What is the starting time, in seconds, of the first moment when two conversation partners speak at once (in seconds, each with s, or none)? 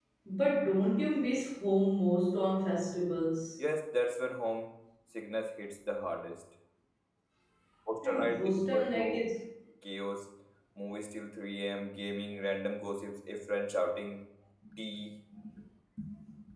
8.0 s